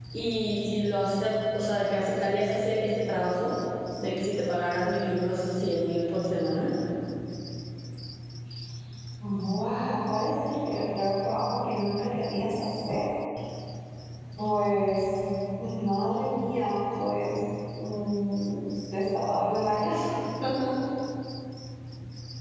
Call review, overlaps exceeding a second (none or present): none